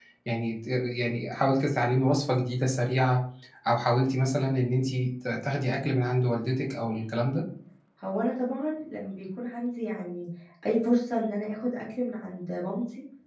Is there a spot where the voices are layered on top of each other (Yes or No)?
No